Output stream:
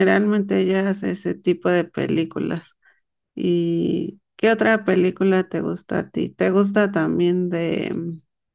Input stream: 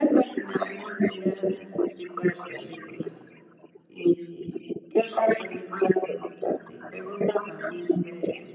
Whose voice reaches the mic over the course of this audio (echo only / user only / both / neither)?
echo only